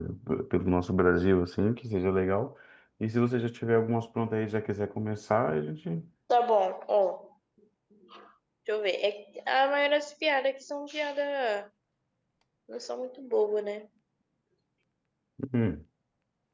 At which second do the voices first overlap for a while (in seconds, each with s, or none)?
none